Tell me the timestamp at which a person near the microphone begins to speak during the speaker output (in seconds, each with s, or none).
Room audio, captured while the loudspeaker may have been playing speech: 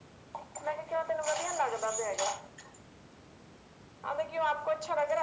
none